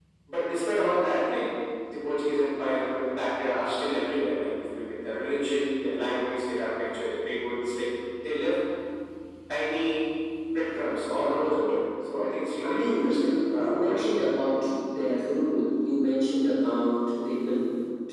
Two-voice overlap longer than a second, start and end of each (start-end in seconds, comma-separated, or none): 12.6-14.3